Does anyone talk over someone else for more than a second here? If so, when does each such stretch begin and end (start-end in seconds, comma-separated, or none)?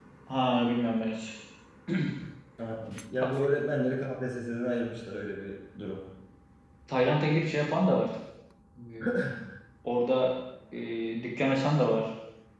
none